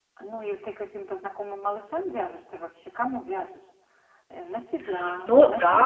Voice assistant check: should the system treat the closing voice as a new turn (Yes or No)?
Yes